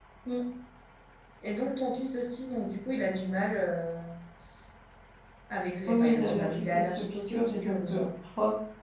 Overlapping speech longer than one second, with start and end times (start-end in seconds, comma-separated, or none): 5.9-8.1